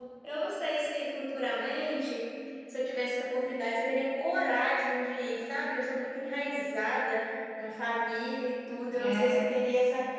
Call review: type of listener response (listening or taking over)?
listening